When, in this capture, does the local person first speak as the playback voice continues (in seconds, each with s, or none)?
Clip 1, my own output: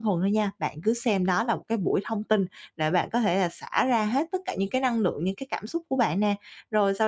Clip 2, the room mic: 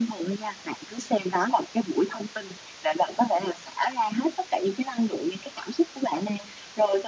none